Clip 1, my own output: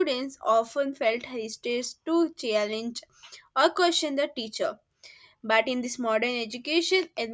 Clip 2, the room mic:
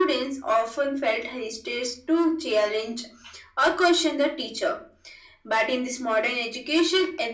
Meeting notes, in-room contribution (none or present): none